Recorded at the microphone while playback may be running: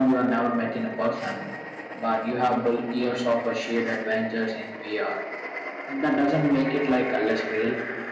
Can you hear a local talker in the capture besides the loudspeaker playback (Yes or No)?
No